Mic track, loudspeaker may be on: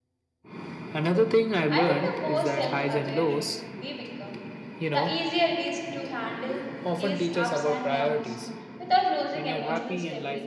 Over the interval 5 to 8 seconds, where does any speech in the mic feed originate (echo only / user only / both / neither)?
both